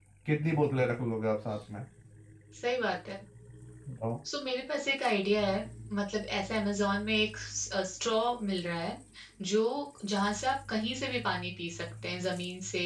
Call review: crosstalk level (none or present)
none